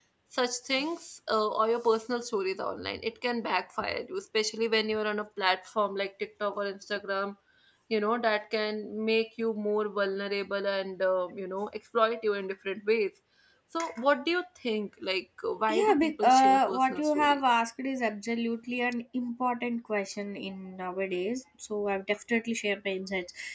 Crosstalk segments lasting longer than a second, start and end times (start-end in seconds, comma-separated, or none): 15.7-17.4